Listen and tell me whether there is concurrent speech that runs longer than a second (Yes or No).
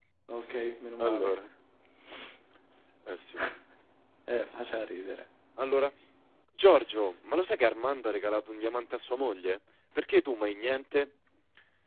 No